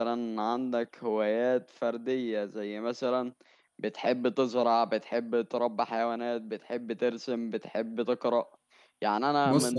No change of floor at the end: Yes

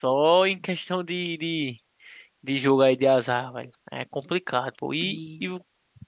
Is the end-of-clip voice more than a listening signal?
No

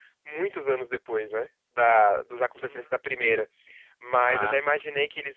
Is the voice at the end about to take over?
No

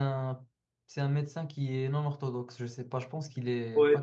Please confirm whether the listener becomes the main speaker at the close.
Yes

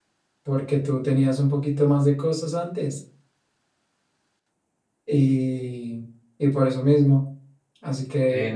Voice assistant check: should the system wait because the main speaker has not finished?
No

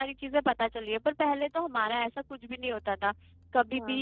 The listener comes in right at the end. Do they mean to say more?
No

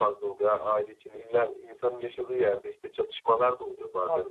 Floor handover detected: Yes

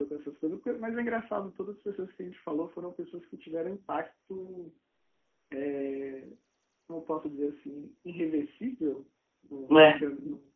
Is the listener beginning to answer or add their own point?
No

